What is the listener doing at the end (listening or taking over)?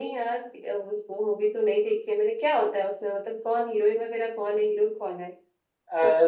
taking over